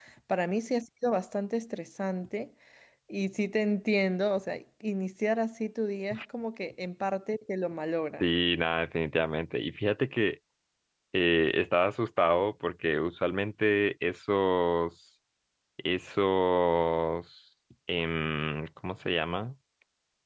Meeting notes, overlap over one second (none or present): none